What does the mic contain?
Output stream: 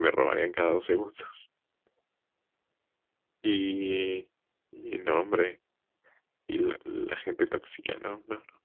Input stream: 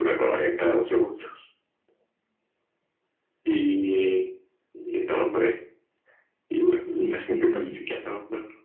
both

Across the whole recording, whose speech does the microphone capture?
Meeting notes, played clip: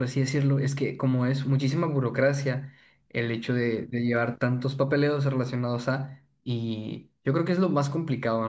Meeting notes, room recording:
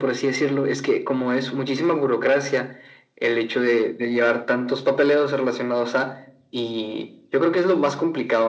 echo only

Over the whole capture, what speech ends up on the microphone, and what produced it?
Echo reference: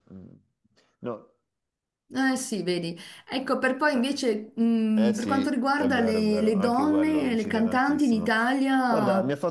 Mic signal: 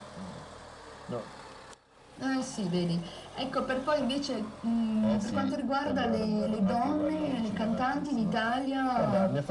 echo only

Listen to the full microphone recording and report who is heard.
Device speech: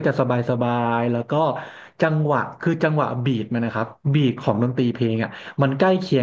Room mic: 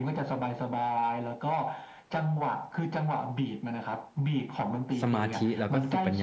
both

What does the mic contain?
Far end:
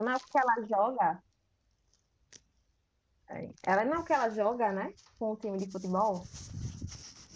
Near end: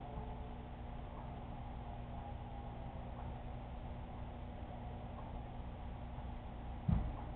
neither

